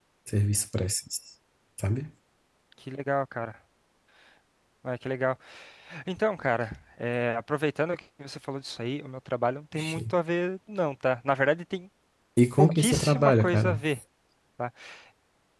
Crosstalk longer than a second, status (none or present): present